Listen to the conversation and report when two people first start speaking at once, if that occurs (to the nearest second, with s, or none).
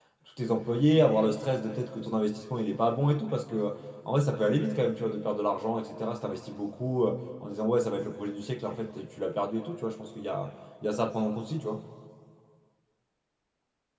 none